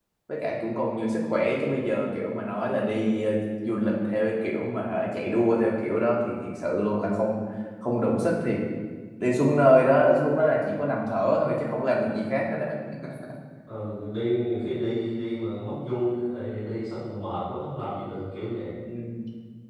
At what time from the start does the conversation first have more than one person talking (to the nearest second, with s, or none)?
none